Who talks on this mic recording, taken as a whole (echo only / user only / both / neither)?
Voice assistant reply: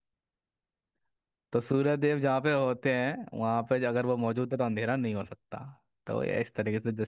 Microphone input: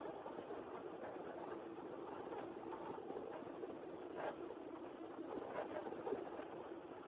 neither